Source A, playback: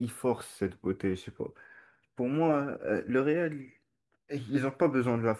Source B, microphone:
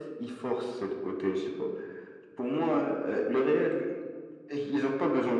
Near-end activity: none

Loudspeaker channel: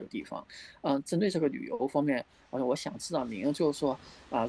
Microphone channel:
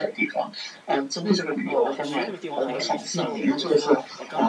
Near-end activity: present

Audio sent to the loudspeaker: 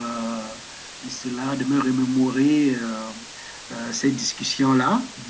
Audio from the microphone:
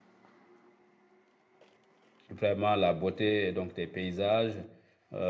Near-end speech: present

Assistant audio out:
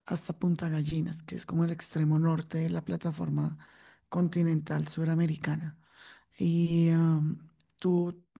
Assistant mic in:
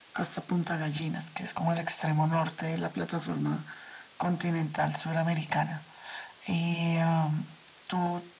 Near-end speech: none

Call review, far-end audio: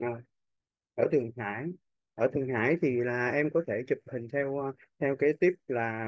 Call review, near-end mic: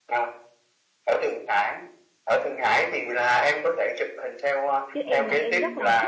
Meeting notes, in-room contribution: present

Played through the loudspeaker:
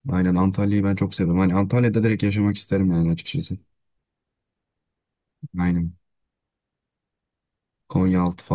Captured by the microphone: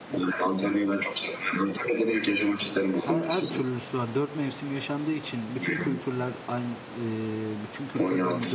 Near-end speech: present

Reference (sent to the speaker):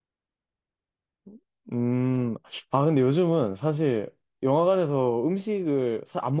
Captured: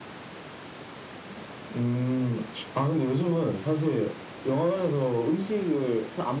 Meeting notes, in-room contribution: none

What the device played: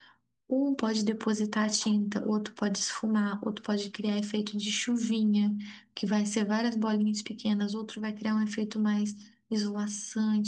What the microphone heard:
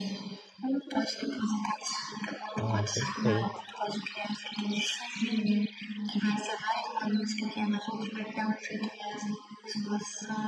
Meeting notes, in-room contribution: present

